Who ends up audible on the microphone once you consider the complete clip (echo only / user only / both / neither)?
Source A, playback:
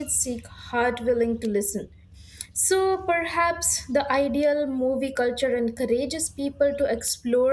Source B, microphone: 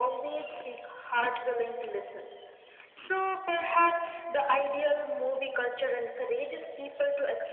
echo only